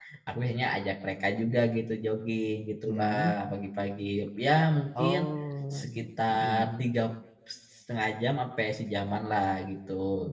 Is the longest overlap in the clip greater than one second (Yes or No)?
No